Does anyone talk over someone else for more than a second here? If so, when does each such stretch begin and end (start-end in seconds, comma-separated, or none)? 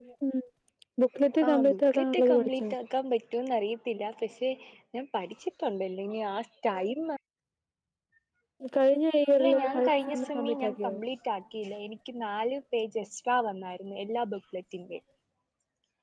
1.5-2.7, 9.3-10.9